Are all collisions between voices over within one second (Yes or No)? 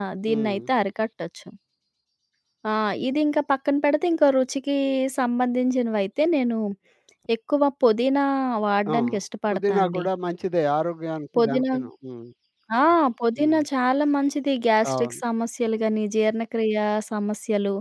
Yes